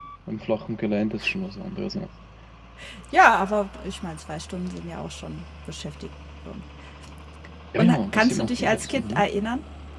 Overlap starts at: 7.8 s

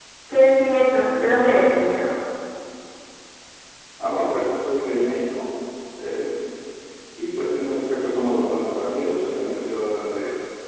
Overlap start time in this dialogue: none

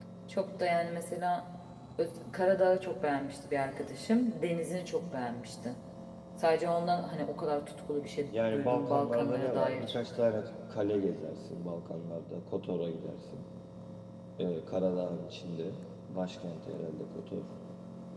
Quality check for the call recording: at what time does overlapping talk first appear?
8.3 s

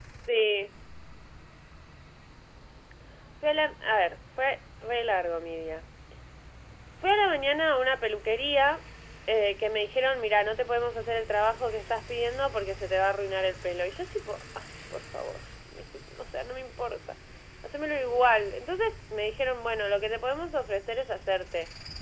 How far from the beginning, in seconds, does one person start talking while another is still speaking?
none

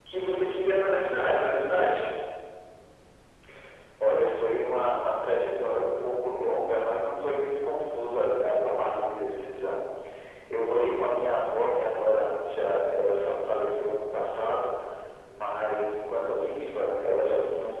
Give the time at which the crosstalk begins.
none

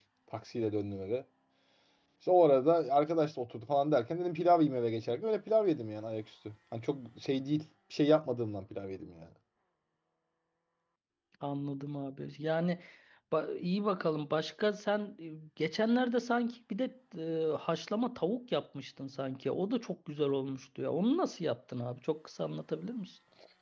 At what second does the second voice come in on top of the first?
none

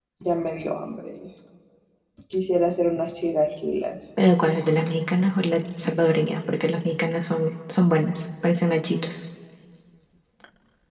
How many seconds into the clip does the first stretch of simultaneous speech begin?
none

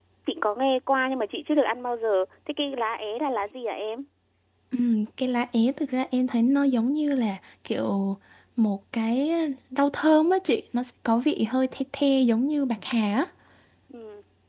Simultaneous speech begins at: none

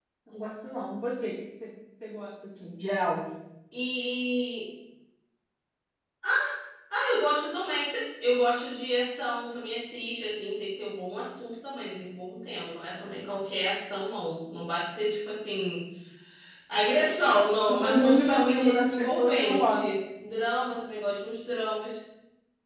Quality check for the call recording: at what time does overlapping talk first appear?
17.7 s

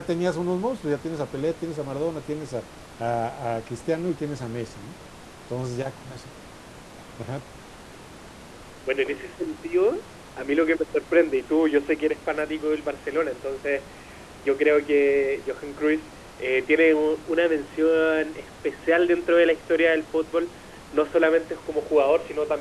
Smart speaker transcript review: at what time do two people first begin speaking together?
none

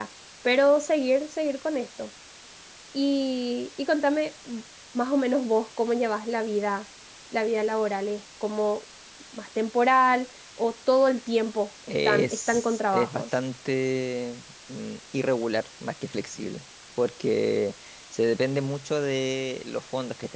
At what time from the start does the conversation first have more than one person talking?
11.9 s

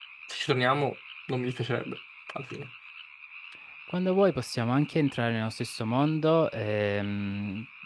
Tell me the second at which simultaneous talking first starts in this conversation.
none

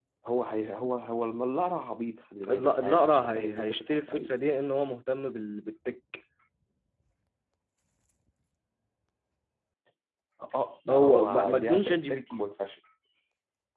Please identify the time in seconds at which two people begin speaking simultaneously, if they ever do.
2.5 s

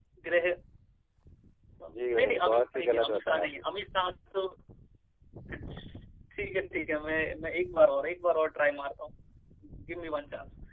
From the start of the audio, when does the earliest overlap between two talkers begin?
1.9 s

